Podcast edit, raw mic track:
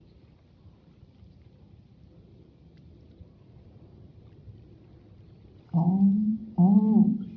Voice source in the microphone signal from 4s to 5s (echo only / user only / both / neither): neither